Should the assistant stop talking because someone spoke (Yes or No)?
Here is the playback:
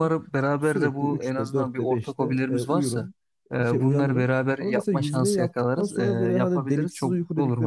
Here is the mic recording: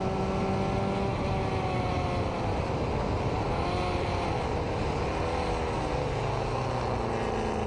No